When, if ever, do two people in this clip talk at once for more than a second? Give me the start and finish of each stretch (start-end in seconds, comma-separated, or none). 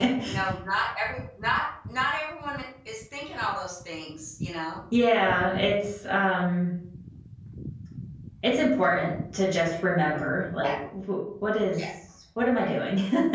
none